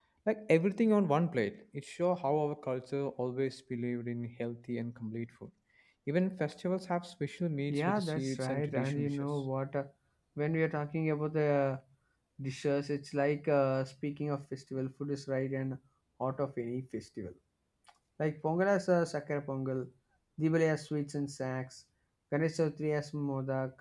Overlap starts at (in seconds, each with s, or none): 7.7 s